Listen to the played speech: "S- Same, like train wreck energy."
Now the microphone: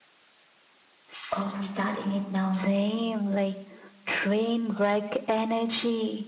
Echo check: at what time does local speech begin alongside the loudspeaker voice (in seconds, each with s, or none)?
1.3 s